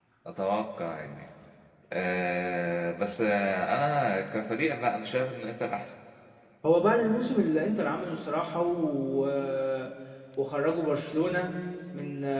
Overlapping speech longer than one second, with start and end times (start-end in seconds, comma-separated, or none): none